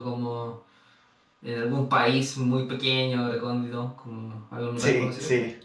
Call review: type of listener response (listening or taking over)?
taking over